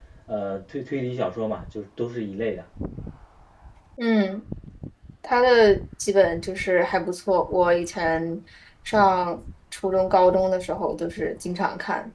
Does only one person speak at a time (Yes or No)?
Yes